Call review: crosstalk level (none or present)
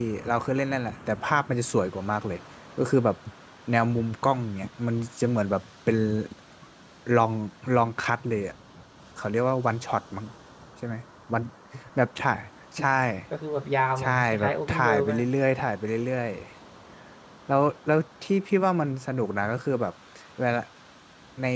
present